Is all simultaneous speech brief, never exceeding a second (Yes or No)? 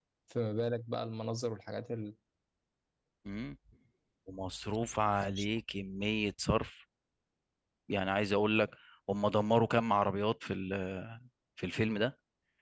Yes